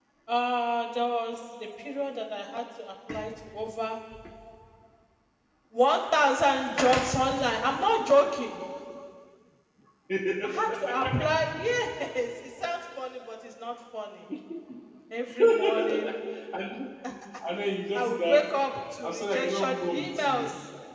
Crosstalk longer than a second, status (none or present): present